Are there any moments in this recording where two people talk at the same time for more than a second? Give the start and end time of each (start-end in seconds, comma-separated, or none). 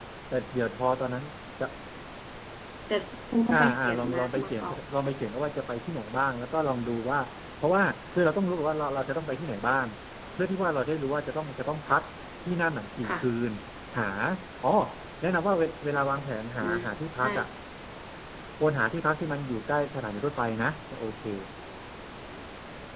3.5-4.8